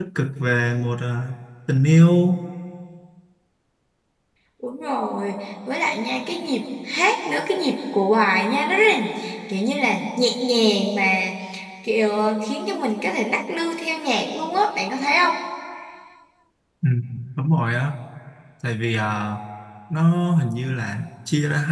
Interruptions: none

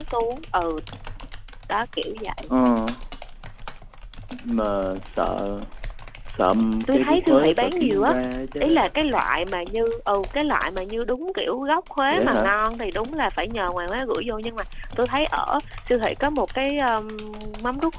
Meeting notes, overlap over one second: present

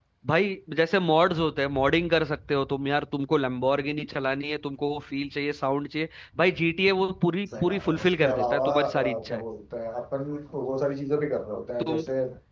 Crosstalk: present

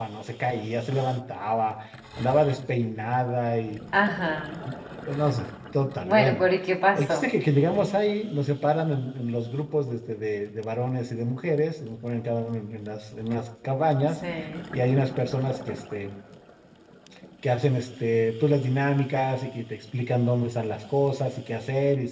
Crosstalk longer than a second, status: none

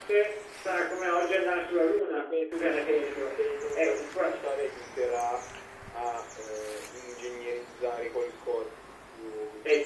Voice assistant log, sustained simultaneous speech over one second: present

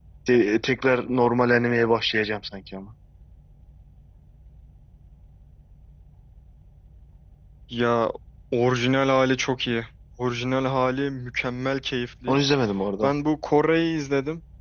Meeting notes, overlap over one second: none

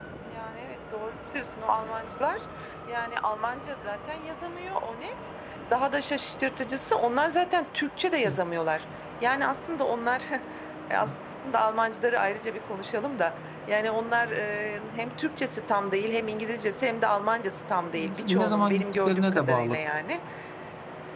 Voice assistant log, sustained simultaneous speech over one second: present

